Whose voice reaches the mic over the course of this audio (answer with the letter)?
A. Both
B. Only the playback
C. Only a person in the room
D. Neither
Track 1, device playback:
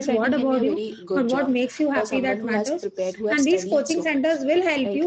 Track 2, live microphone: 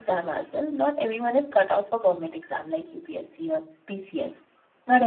C